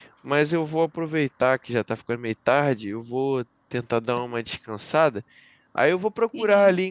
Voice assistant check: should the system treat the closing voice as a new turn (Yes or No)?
No